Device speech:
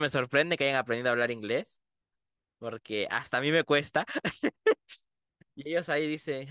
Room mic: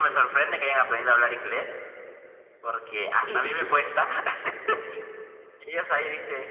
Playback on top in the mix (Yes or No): No